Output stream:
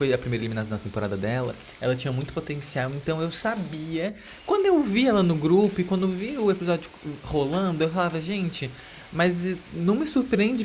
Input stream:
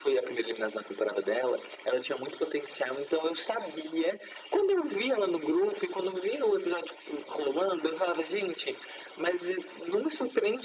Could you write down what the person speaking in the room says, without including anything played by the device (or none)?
none